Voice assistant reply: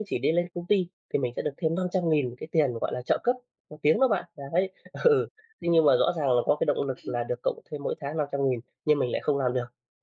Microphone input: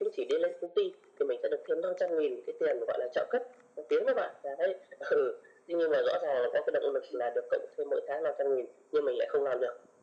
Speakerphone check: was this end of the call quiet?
Yes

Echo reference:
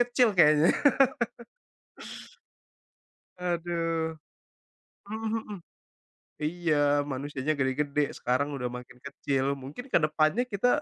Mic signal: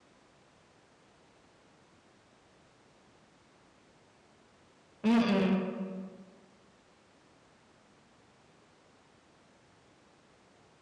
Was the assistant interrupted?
Yes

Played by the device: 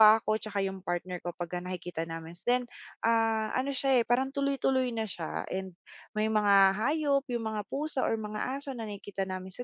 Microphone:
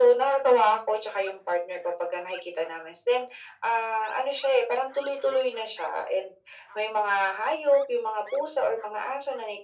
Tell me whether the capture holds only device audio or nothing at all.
Yes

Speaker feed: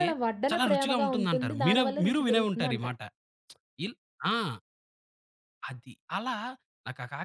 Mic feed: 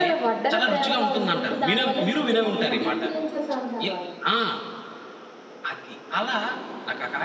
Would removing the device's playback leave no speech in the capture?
No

